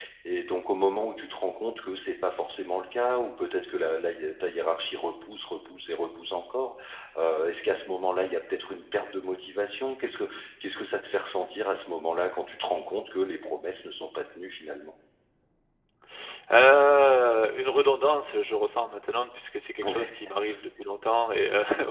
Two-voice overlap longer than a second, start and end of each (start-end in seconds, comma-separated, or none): none